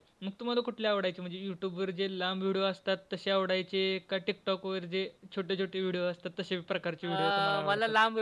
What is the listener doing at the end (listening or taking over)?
taking over